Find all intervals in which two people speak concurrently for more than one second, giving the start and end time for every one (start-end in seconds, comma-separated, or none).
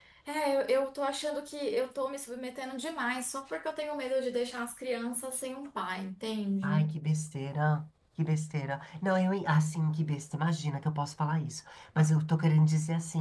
none